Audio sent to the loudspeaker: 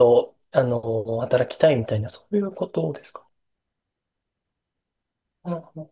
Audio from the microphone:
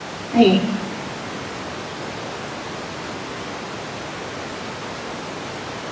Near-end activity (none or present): present